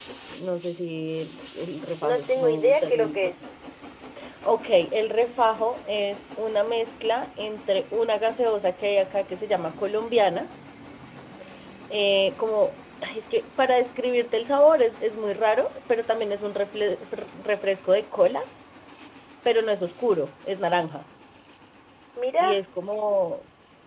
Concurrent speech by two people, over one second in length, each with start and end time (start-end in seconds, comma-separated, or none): 2.0-3.3